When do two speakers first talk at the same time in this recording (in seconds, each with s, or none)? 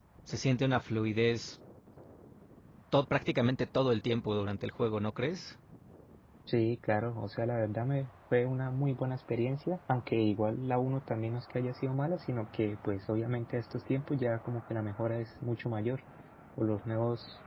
none